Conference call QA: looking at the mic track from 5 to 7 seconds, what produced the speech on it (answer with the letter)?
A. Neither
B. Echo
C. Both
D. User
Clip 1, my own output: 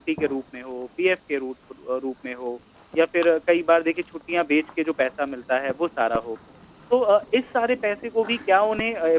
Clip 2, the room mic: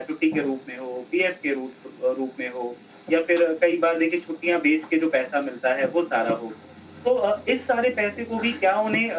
B